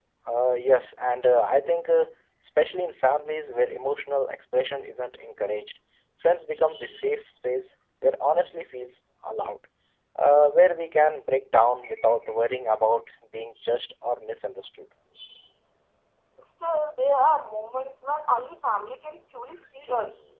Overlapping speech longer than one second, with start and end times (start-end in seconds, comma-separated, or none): none